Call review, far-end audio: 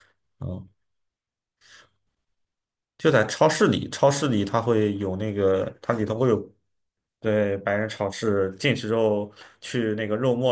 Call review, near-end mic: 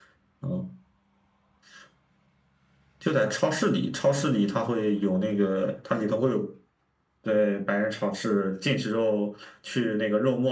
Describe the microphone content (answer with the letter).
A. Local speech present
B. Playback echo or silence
B